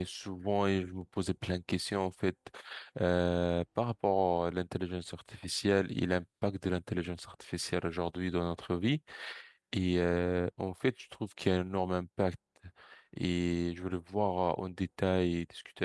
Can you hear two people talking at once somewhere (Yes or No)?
No